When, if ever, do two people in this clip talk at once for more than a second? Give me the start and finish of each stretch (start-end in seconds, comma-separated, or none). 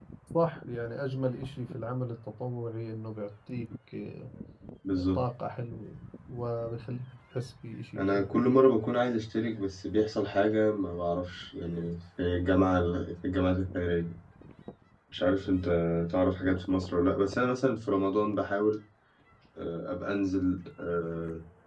none